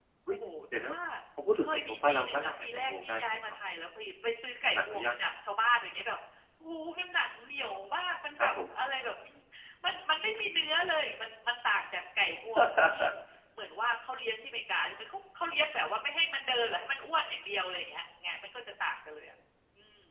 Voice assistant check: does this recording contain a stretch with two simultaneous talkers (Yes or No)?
Yes